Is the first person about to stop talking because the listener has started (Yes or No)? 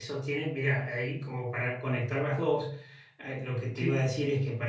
No